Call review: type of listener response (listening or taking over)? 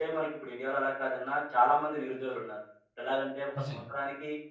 listening